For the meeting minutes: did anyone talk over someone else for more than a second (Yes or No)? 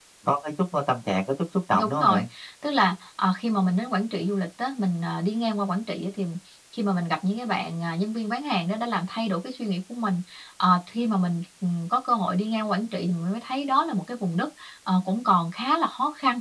No